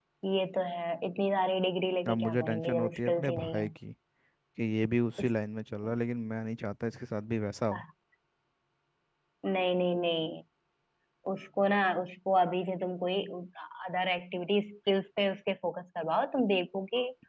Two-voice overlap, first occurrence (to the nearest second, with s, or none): 2 s